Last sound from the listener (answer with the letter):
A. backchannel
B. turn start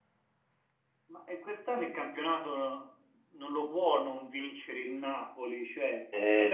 A